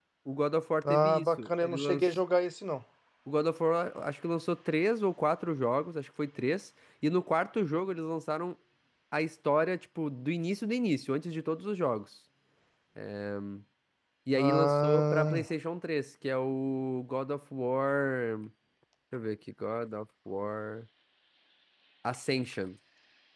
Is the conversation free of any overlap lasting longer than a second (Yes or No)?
No